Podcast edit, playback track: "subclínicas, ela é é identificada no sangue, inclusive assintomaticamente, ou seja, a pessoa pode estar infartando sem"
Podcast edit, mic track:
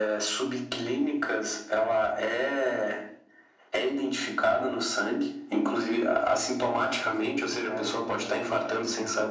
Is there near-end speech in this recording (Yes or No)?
Yes